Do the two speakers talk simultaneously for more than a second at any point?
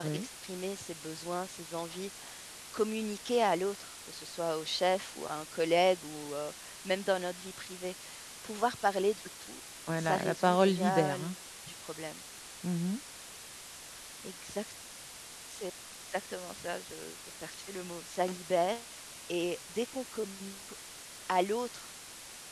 Yes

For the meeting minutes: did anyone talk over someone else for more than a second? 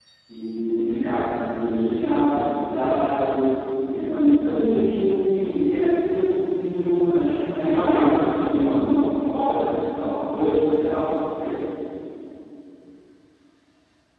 Yes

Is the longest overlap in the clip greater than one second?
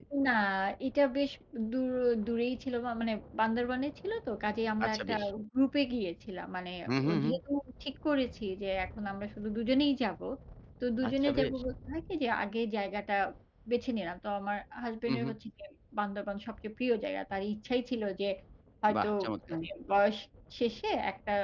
No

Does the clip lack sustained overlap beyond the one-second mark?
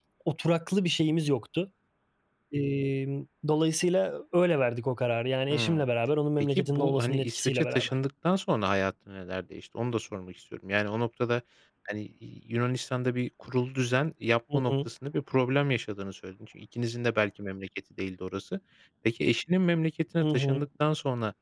No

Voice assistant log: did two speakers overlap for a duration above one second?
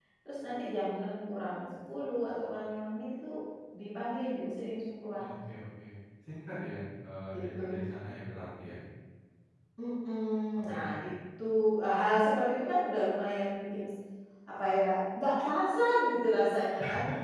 No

